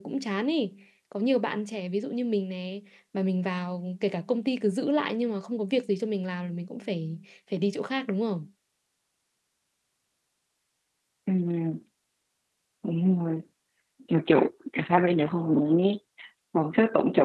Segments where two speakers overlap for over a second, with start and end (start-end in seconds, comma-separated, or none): none